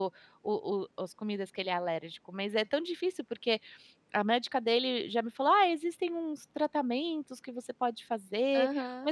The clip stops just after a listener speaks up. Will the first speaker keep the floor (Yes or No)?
Yes